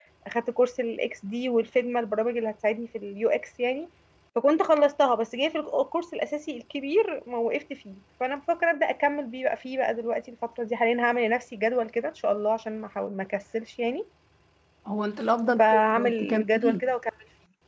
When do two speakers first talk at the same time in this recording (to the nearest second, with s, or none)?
16 s